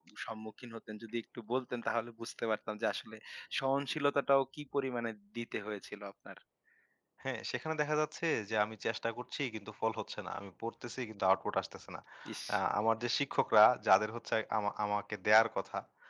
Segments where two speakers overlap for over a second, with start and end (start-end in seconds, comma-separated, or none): none